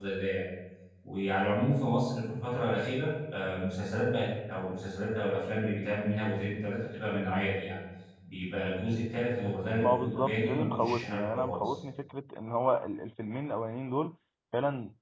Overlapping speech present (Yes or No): Yes